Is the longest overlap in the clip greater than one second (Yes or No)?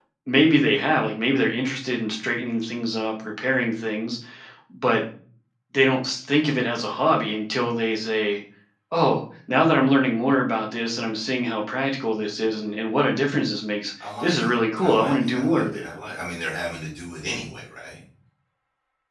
Yes